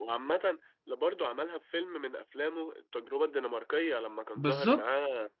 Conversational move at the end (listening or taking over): listening